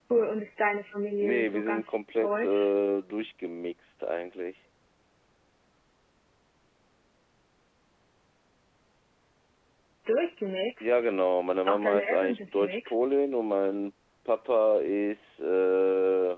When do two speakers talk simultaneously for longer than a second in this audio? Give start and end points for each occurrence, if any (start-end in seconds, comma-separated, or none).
1.2-2.7, 11.7-13.0